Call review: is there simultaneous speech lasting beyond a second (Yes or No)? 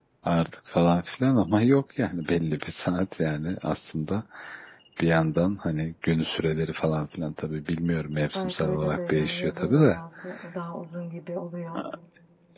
Yes